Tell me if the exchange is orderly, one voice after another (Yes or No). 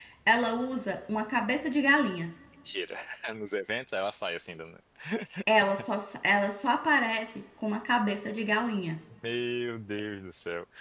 Yes